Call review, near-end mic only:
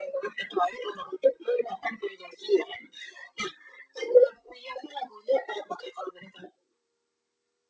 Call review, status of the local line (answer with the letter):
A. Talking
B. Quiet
B